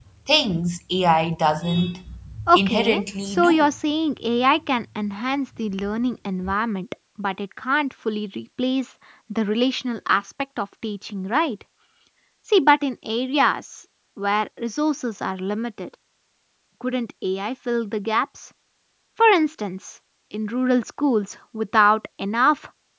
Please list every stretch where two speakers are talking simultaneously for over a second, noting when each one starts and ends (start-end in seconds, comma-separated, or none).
2.5-3.7